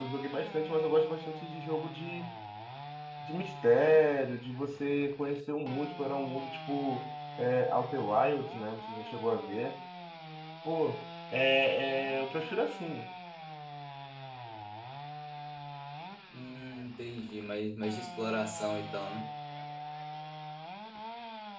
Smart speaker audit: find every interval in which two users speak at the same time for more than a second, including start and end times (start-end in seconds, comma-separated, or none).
none